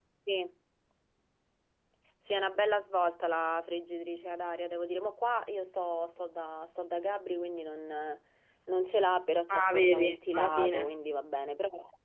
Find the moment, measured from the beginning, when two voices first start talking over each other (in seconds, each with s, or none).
9.5 s